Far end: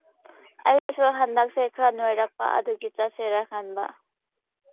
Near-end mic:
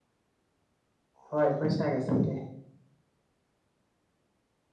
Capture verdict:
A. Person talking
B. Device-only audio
A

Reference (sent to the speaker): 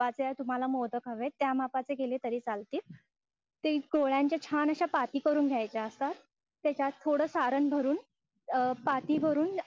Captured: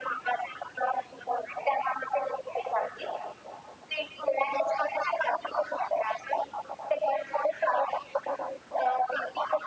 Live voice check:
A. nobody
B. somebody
A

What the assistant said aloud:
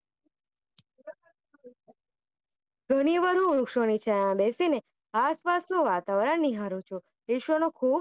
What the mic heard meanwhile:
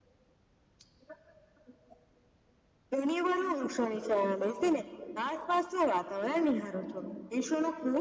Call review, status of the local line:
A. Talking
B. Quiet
B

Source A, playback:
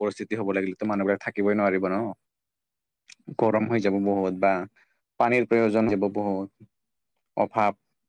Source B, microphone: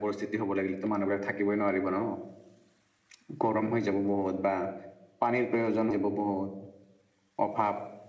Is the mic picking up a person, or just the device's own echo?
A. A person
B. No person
B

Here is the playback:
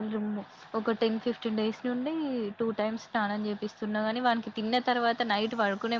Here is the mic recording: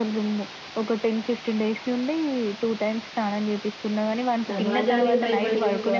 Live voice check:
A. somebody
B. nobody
A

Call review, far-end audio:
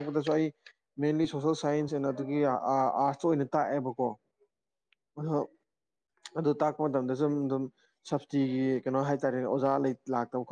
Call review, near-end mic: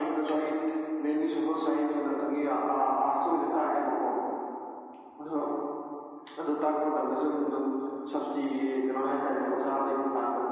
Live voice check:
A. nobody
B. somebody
A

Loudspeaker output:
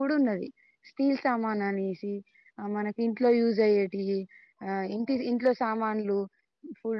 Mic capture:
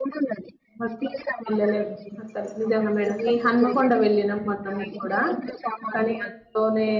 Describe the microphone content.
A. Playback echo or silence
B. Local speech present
B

